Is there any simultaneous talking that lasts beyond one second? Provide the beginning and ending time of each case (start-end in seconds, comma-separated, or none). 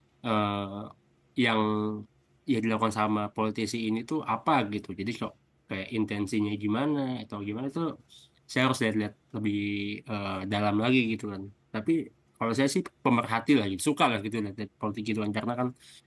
none